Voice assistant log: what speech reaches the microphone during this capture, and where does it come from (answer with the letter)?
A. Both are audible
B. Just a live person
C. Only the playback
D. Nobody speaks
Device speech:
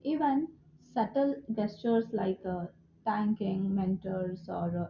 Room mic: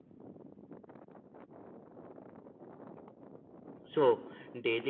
B